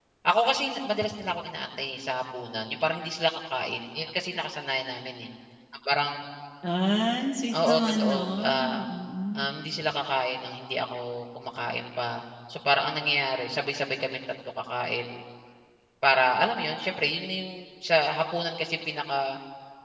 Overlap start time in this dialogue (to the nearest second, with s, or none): 8 s